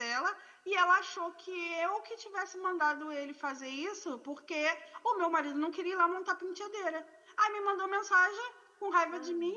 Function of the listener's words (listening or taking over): listening